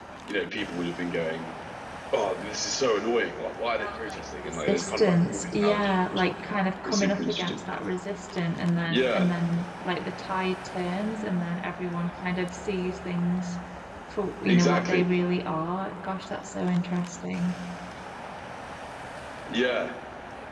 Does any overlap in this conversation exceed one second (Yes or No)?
Yes